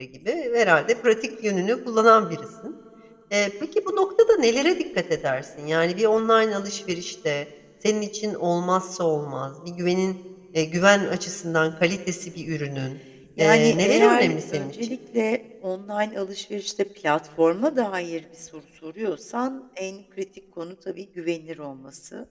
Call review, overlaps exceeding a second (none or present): present